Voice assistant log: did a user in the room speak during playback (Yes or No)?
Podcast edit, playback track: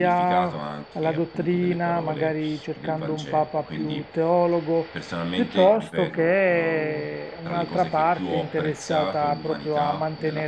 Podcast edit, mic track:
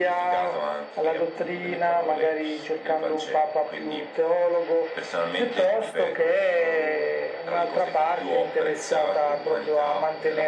No